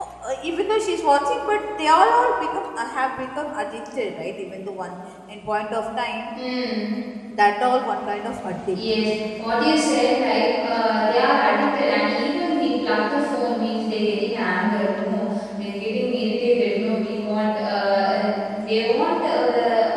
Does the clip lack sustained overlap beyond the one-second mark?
Yes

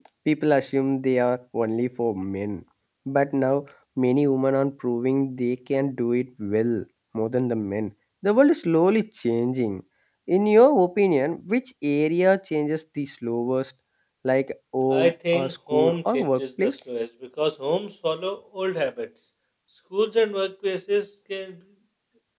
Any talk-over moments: Yes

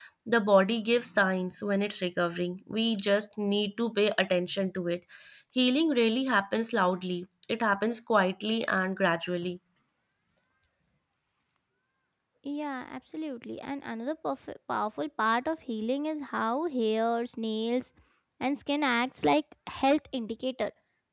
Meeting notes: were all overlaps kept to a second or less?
Yes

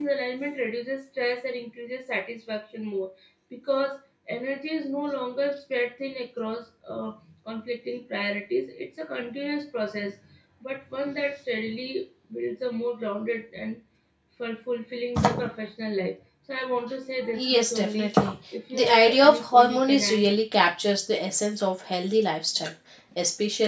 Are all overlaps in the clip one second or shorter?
No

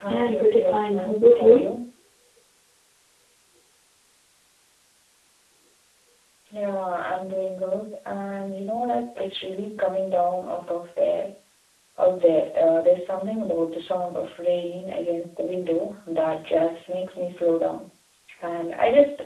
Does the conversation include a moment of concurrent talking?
Yes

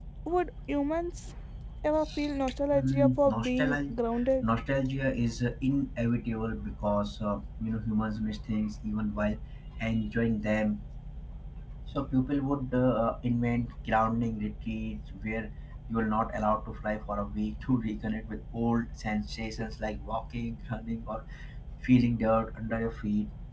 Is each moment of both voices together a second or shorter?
No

